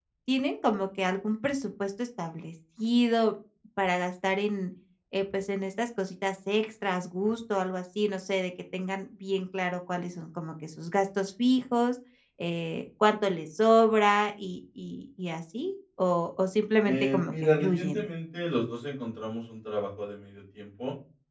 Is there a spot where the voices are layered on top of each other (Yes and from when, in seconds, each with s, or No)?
Yes, from 16.8 s